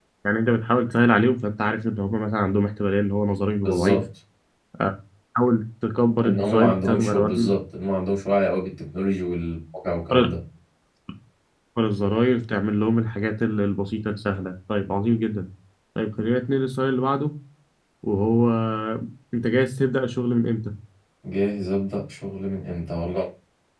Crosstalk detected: Yes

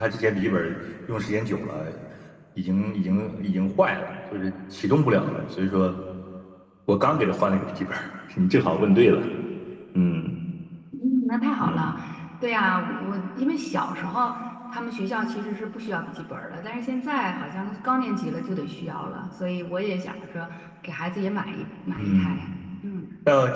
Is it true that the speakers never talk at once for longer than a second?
Yes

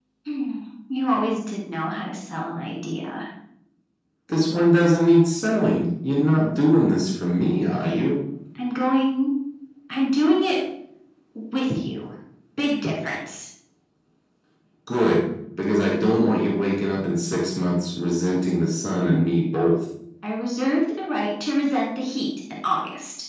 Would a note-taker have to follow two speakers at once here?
No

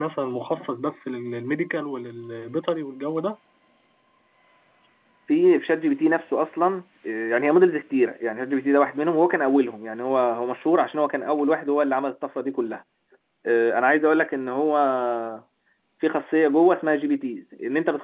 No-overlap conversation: Yes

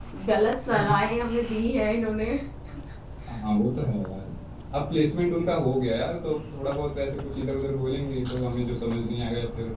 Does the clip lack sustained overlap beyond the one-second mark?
Yes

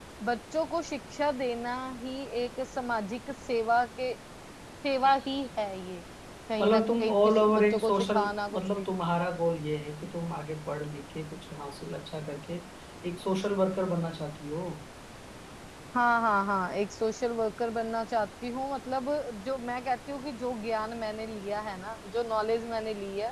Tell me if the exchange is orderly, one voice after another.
No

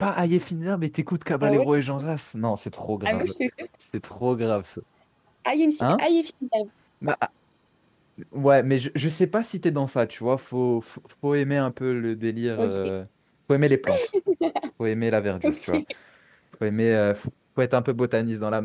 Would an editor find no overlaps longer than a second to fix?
Yes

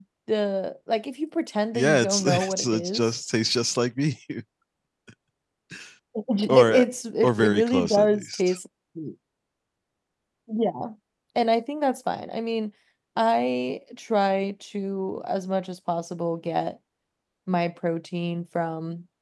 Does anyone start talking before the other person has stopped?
Yes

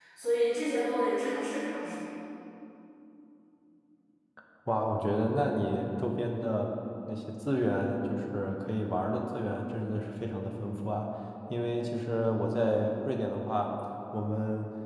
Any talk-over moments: No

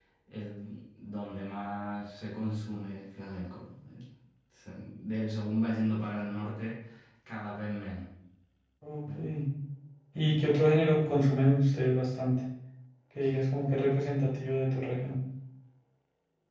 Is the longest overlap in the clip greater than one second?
No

